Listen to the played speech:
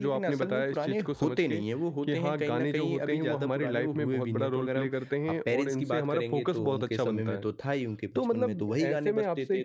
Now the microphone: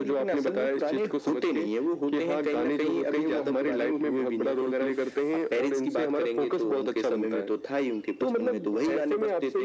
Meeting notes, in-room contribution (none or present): none